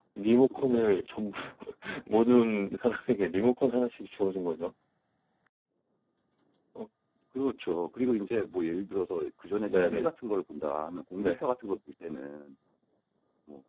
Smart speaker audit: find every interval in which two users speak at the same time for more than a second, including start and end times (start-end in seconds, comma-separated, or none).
none